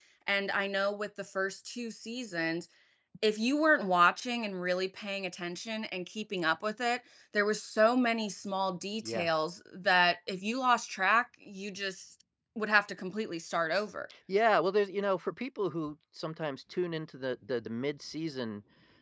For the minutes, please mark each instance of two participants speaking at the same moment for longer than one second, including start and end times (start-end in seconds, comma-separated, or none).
none